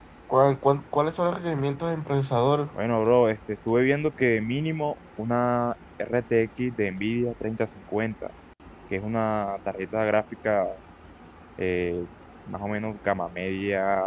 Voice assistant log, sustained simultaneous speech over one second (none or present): none